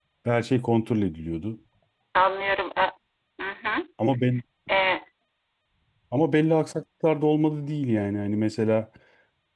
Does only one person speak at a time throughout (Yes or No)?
Yes